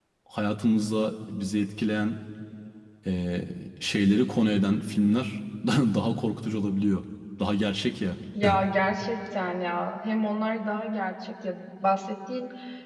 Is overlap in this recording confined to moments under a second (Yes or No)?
Yes